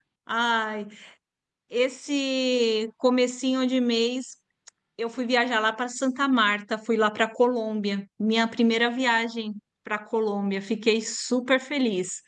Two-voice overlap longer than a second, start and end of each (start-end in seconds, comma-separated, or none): none